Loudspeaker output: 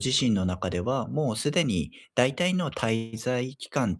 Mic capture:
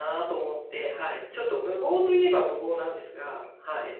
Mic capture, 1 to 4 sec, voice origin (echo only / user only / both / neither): user only